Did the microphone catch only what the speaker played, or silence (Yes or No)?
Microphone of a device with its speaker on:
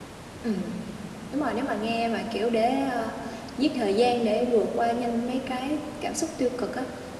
No